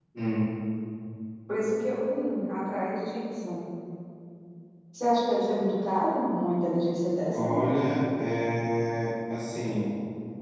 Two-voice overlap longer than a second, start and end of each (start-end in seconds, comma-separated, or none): none